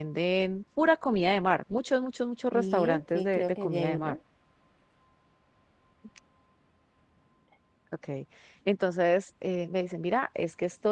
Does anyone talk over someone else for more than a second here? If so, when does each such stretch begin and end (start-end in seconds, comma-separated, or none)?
2.5-4.2